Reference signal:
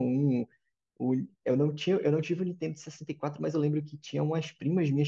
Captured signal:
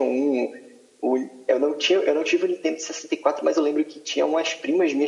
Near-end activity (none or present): none